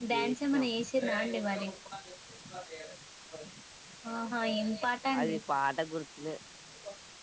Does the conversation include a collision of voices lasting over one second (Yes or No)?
No